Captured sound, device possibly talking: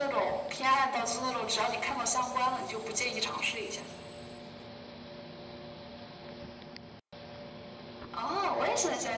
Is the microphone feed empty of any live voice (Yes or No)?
Yes